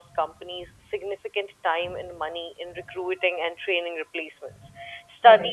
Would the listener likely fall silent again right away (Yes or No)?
Yes